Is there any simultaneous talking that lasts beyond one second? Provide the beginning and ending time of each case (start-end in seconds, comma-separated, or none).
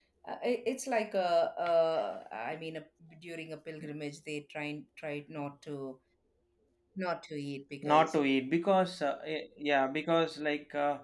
none